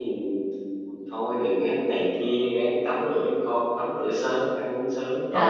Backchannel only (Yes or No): No